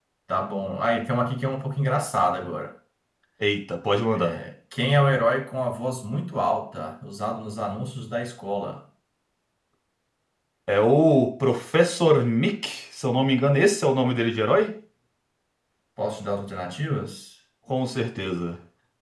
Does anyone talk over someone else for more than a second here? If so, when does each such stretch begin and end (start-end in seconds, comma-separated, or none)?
none